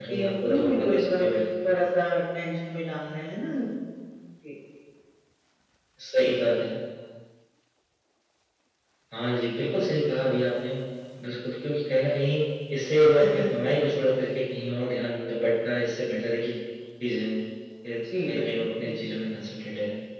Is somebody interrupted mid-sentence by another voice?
Yes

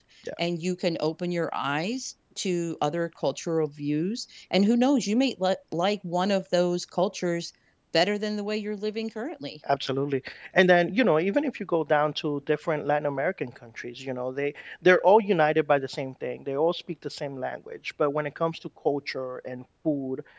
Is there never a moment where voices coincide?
Yes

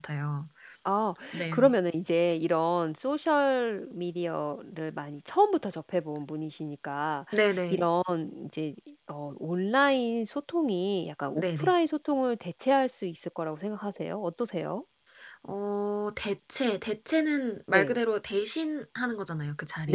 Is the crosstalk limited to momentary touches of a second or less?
Yes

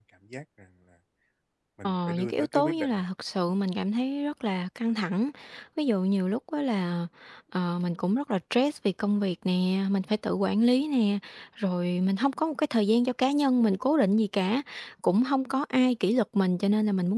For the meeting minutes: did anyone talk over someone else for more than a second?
Yes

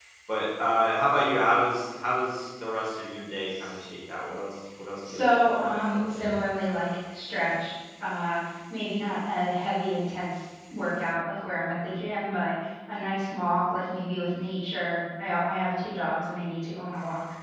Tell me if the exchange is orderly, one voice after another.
No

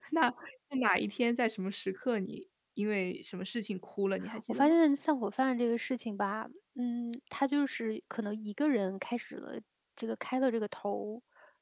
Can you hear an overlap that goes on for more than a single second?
No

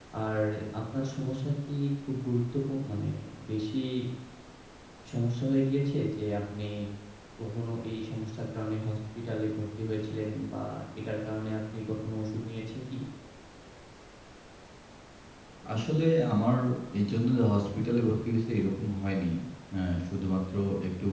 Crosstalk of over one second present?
No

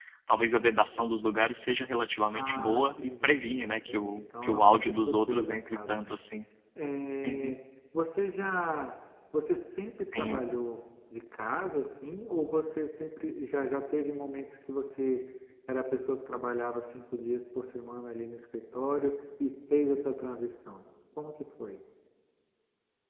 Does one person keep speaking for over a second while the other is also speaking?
Yes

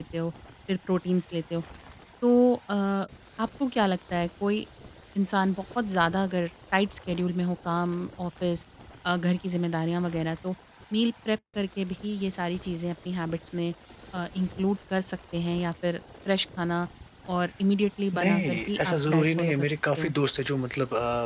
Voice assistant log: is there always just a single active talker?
No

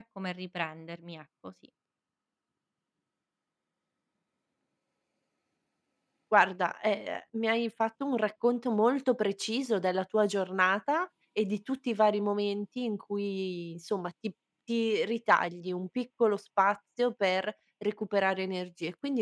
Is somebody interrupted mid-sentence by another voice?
No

